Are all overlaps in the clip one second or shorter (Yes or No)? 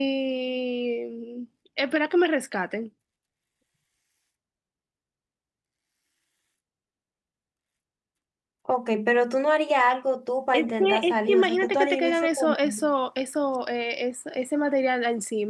No